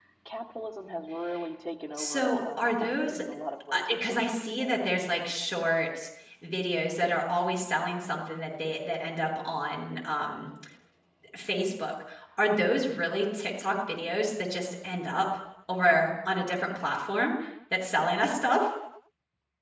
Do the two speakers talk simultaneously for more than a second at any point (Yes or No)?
Yes